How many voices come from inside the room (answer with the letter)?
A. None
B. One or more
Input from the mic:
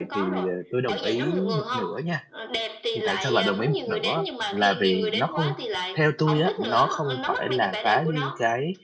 B